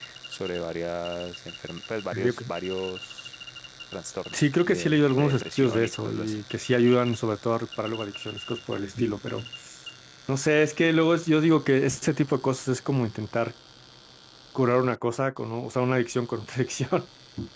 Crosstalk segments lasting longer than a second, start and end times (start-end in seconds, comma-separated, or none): 4.3-6.4